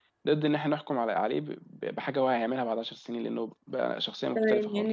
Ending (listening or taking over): taking over